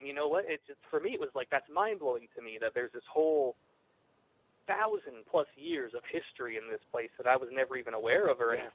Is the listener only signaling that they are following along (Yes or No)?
Yes